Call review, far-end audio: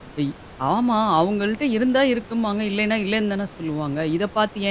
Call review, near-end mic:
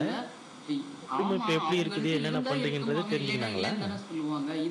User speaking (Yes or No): Yes